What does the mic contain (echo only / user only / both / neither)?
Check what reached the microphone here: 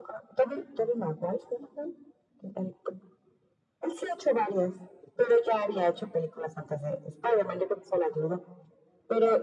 echo only